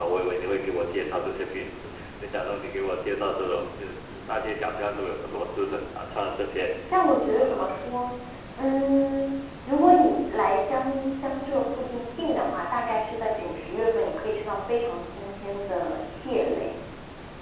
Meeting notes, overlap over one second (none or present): none